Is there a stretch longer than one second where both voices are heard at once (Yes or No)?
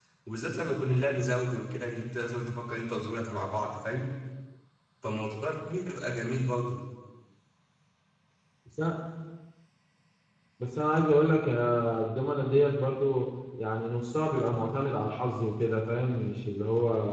No